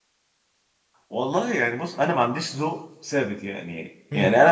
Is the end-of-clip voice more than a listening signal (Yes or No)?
No